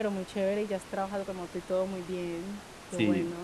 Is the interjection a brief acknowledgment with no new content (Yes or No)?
No